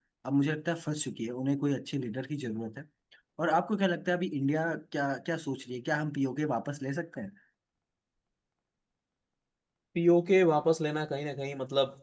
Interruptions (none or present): none